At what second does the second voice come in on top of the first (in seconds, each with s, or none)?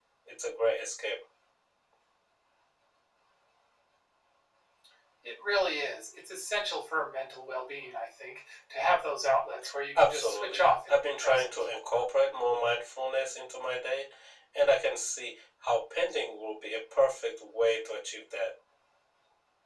9.9 s